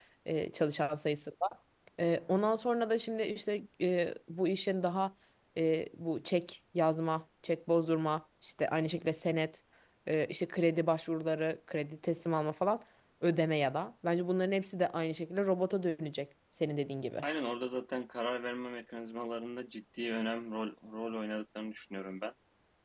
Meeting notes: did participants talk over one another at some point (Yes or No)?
No